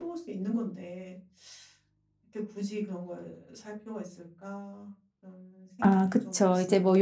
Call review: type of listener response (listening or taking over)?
taking over